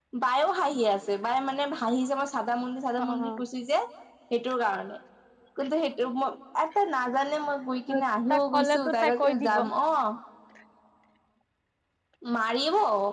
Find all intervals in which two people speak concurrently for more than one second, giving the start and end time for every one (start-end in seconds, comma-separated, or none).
8.3-9.6